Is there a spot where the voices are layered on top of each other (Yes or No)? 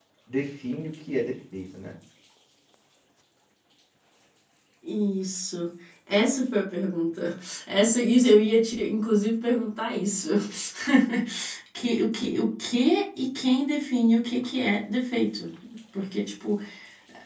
No